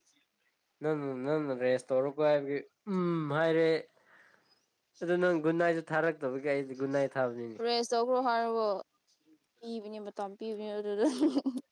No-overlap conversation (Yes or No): Yes